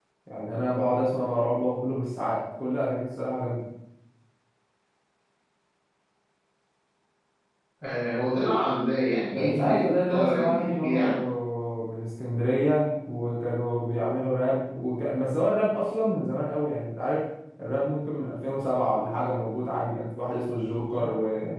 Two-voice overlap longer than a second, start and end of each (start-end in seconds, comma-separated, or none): 9.3-11.0